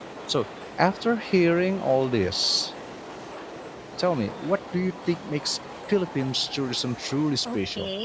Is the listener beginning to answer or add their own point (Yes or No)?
Yes